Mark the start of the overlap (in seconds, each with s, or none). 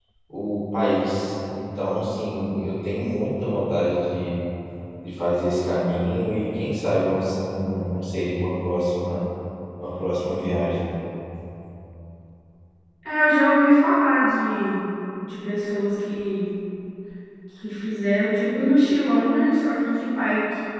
none